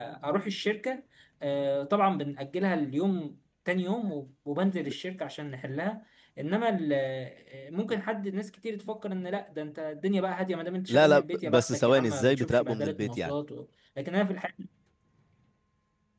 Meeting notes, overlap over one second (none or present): present